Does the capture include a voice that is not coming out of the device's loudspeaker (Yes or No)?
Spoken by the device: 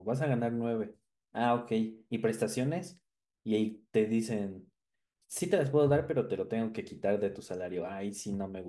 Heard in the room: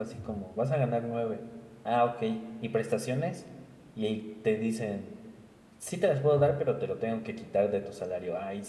No